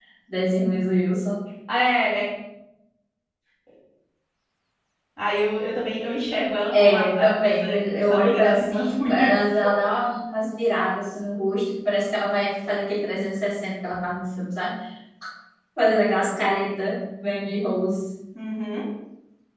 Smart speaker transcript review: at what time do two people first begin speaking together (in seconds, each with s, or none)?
6.7 s